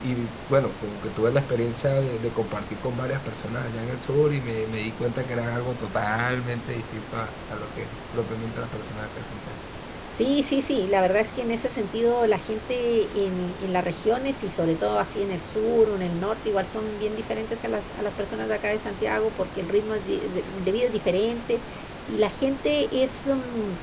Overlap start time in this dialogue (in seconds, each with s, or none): none